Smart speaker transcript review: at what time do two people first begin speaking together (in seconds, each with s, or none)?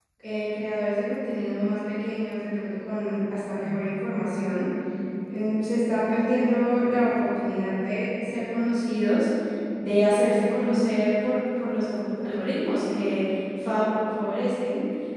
none